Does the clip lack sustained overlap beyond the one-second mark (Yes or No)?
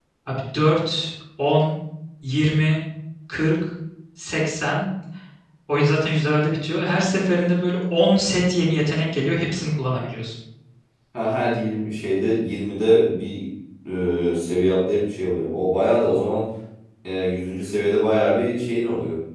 Yes